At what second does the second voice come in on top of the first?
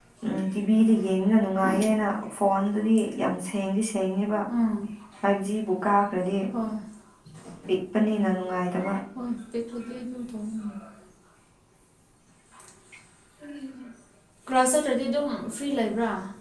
none

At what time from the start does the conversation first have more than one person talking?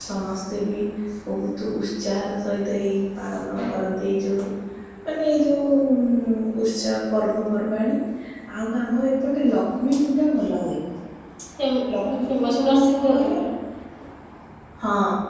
12 s

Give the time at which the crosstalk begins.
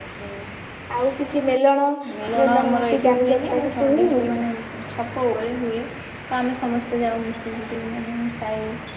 2 s

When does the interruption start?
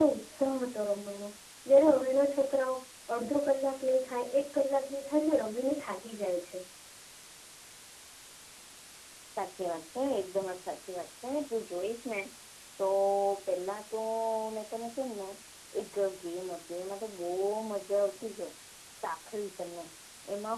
none

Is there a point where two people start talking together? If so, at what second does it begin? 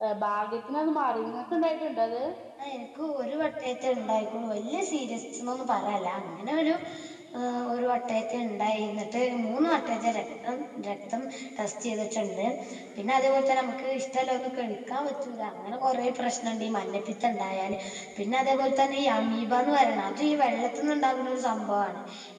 none

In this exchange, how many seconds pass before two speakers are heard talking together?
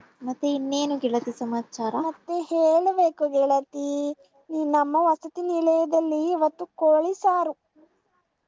none

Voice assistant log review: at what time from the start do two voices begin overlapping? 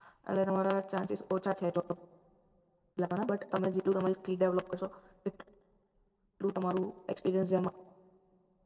none

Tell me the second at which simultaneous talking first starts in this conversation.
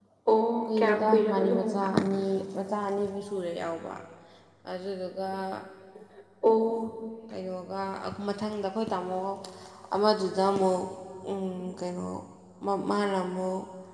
1 s

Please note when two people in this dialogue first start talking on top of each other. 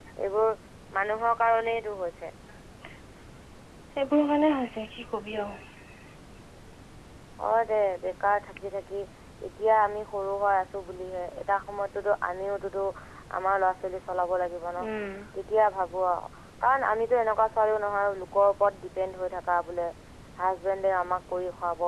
none

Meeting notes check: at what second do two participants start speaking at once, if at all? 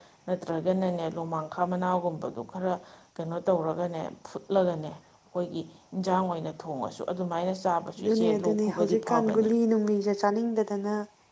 8 s

